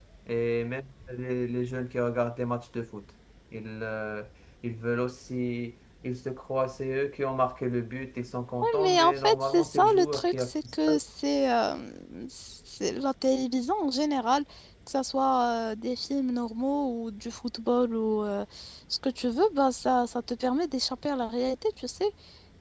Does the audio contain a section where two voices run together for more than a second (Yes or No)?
Yes